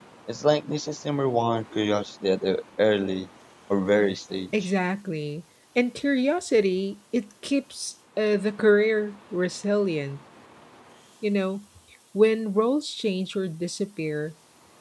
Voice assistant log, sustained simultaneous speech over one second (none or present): none